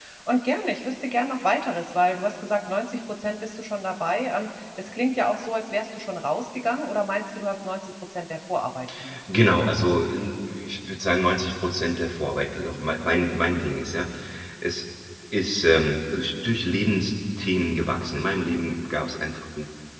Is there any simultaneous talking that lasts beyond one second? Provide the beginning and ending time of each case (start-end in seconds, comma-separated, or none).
none